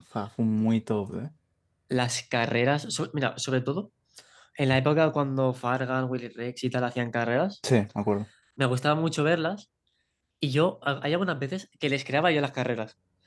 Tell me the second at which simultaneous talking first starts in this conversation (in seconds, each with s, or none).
none